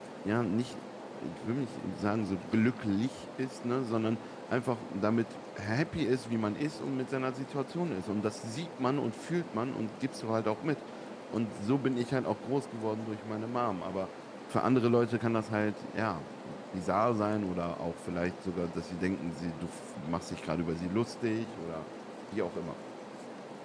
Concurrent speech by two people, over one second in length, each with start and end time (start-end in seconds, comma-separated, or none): none